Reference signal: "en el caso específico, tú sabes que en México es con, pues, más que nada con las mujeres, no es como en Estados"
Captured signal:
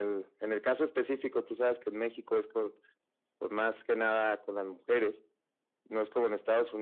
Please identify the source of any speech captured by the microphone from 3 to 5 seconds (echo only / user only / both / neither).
echo only